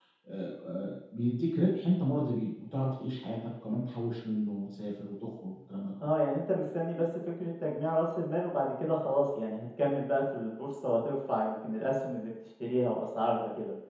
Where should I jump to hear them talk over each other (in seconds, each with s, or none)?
none